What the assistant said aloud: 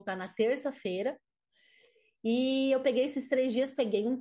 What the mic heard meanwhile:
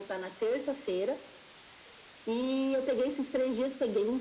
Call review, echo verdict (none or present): present